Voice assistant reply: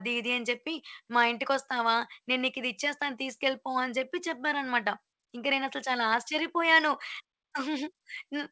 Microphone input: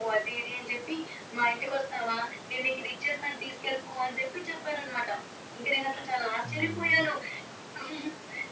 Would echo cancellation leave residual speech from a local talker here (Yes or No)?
Yes